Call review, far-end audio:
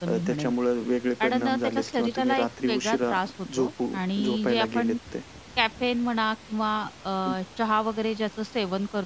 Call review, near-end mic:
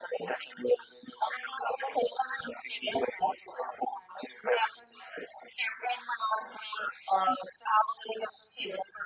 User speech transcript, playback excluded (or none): none